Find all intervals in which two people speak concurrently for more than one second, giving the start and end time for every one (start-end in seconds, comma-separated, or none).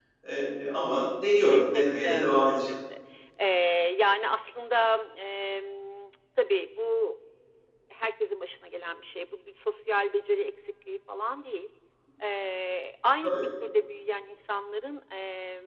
1.5-2.8